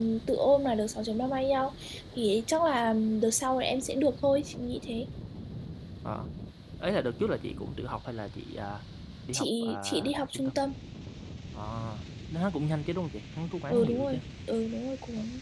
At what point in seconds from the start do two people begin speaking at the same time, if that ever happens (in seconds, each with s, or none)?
9.3 s